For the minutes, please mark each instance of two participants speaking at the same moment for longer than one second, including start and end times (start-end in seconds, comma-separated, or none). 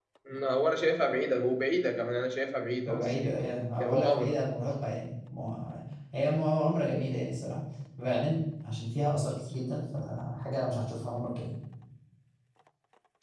2.9-4.4